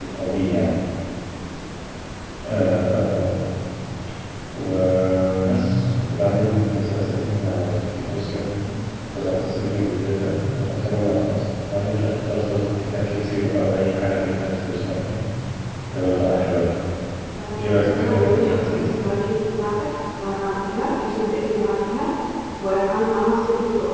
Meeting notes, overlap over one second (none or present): present